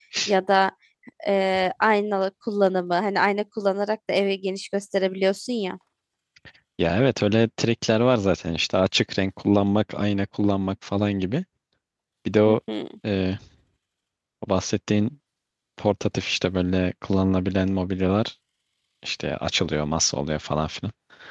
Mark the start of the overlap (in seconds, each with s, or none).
none